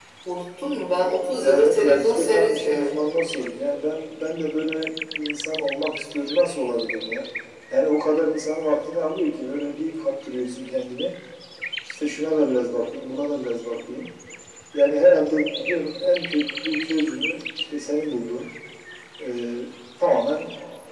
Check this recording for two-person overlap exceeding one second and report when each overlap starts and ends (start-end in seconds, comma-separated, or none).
1.4-2.9